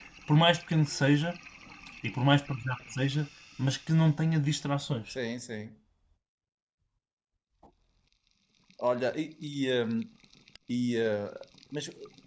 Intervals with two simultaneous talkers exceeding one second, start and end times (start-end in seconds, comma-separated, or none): none